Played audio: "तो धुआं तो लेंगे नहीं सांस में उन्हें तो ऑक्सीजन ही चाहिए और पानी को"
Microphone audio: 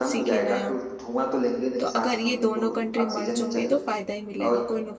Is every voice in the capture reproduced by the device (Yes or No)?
No